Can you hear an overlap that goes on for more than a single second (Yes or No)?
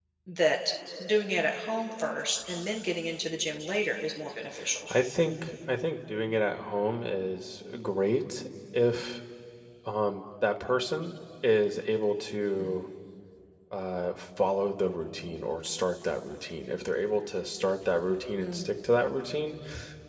No